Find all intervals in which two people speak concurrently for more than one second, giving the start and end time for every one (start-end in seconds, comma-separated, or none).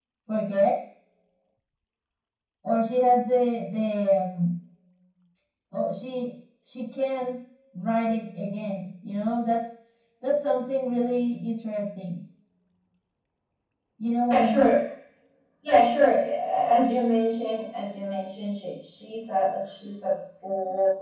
none